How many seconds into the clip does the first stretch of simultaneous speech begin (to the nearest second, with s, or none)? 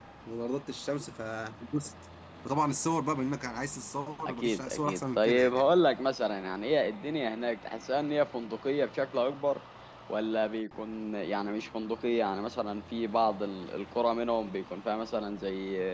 4 s